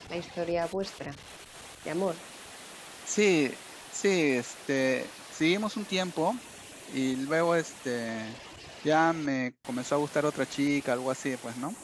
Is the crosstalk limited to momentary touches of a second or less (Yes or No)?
Yes